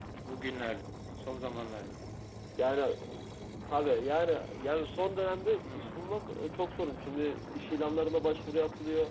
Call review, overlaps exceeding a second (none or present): none